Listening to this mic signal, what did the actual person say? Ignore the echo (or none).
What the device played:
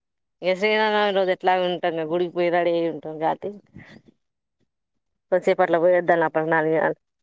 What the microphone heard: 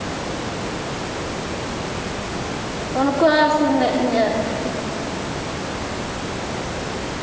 కొనుకోర్సిన లే ఇ